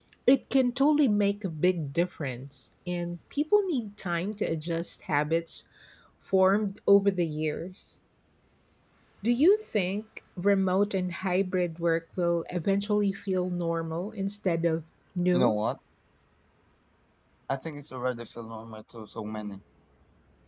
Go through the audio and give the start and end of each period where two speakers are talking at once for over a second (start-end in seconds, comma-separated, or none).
none